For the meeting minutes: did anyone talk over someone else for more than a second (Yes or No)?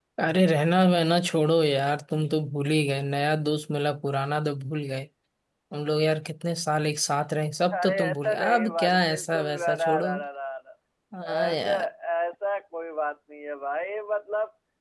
Yes